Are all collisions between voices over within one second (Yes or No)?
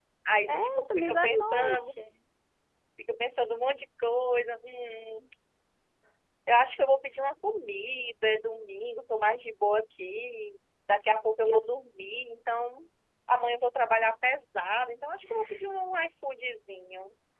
No